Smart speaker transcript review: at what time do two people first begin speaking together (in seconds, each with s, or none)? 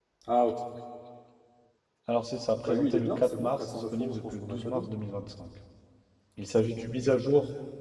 2.6 s